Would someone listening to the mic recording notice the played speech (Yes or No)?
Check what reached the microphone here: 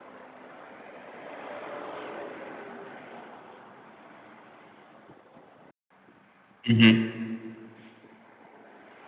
No